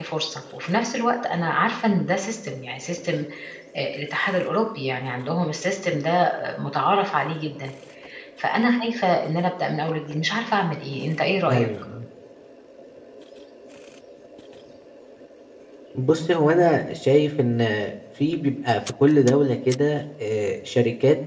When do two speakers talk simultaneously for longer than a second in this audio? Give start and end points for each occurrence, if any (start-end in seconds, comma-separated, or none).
none